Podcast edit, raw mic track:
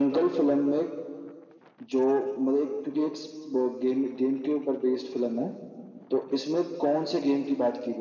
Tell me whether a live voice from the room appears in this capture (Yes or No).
No